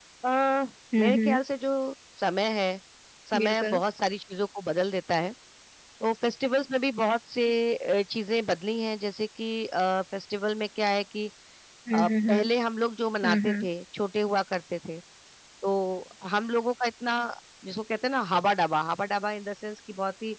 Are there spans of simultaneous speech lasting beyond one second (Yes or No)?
No